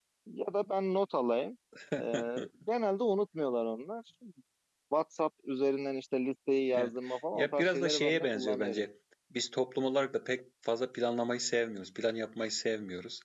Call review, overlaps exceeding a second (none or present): present